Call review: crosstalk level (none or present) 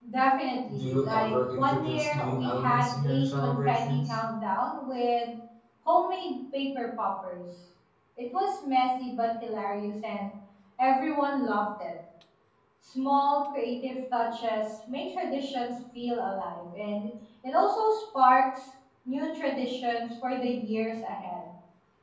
present